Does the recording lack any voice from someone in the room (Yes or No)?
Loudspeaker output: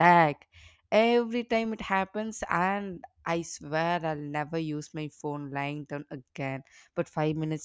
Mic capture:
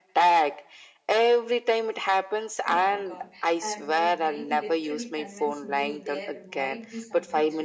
No